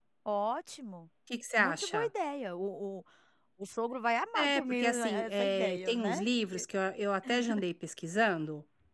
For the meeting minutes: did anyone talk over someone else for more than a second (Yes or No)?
Yes